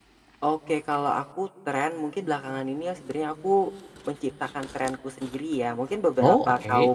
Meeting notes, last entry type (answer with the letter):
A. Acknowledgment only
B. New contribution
A